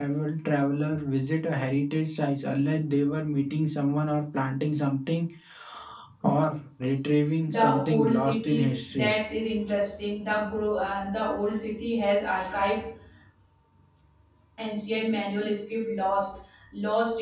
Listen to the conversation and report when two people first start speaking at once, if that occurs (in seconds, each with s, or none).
7.5 s